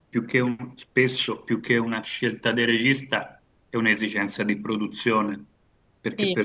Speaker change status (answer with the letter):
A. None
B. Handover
A